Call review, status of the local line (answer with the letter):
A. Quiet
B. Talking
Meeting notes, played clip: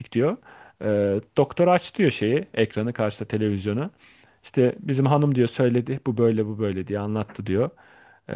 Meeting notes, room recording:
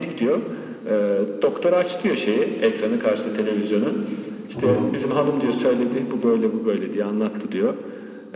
B